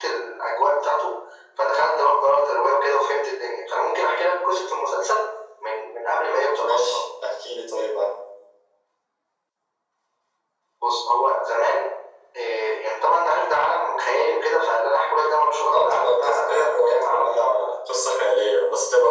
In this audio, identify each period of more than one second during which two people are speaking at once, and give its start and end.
15.7-17.7

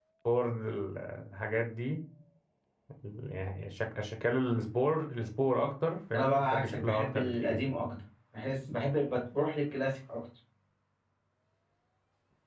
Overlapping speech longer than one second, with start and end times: 6.1-7.8

